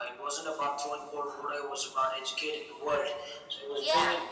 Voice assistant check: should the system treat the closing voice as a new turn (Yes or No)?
No